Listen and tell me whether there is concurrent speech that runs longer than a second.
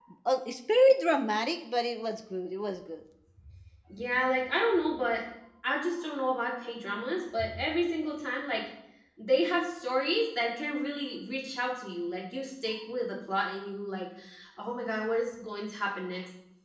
No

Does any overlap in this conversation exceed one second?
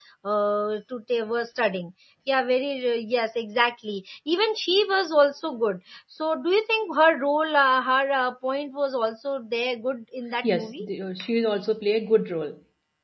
No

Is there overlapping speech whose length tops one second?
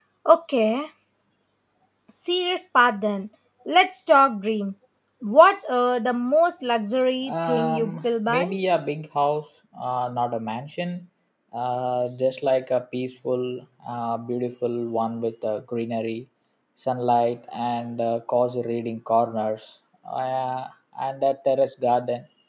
Yes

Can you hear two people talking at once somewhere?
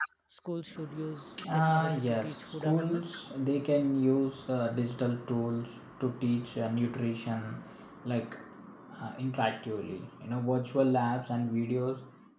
Yes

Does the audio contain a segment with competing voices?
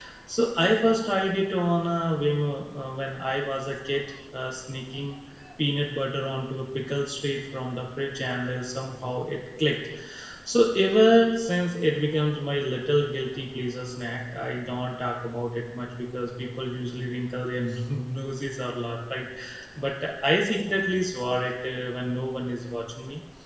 No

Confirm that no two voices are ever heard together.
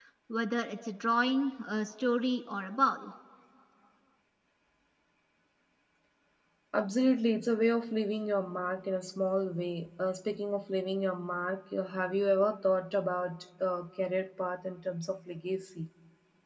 Yes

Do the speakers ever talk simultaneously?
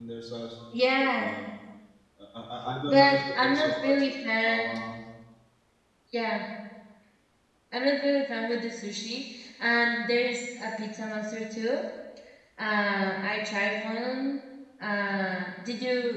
Yes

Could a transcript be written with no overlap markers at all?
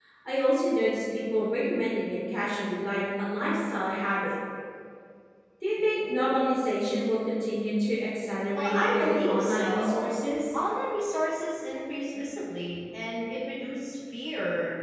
No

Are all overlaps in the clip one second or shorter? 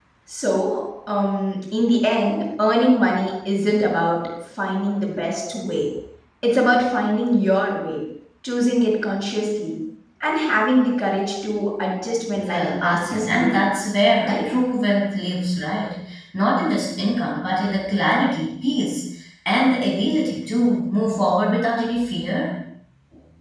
No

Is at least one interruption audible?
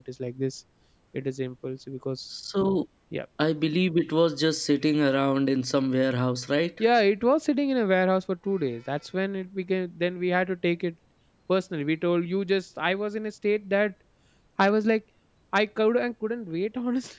No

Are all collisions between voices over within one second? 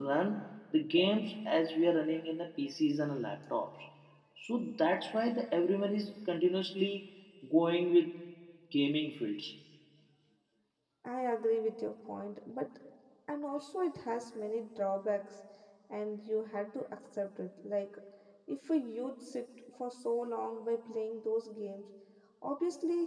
Yes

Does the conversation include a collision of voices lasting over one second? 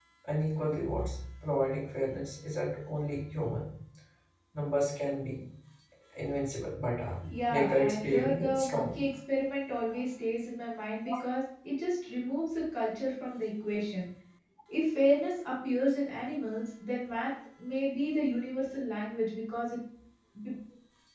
Yes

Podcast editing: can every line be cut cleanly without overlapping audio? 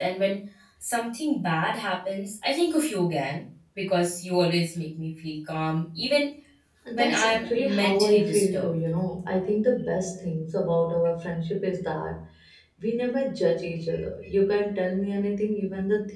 No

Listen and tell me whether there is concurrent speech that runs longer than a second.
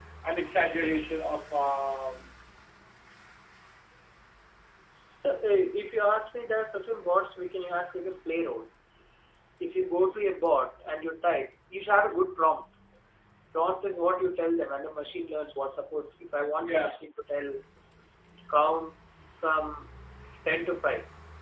No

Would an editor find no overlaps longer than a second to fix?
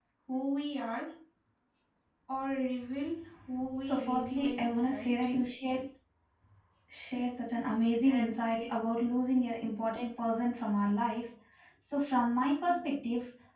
No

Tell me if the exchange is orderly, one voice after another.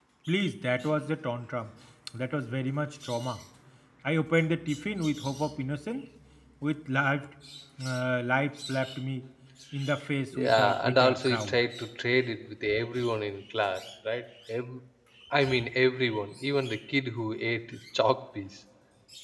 No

